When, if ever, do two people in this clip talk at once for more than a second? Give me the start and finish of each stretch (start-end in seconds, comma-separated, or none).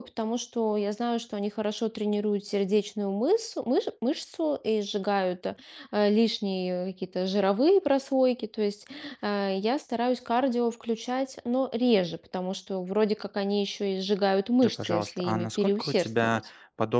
14.6-16.4